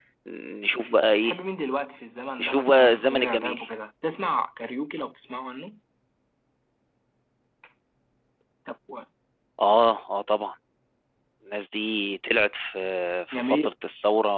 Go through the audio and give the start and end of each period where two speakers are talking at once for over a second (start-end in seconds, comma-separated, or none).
2.4-3.6